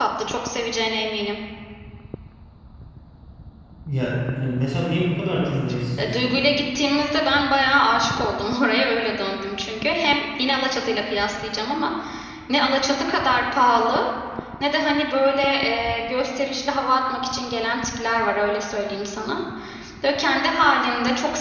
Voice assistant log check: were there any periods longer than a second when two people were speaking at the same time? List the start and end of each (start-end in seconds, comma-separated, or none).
none